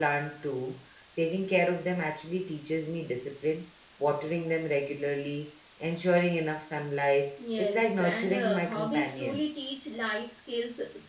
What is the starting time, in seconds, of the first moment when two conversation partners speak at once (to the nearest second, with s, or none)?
7 s